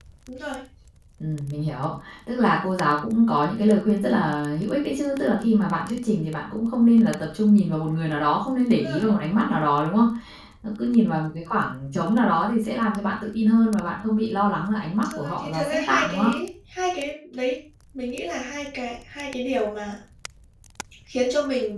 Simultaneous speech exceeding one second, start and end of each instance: 14.9-16.3

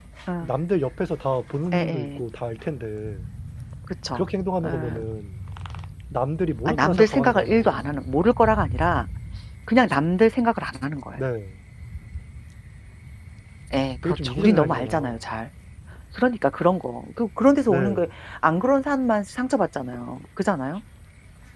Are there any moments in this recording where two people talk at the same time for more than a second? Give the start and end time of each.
6.7-7.8, 14.0-15.3

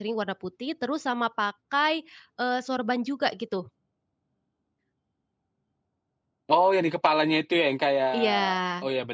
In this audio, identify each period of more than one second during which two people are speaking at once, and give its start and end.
none

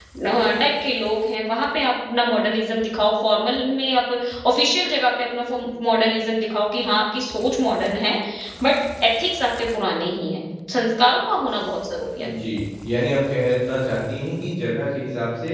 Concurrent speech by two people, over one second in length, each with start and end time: none

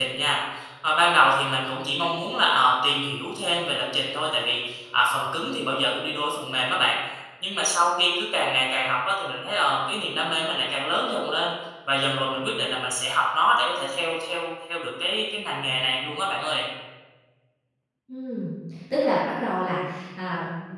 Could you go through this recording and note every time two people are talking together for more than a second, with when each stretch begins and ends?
none

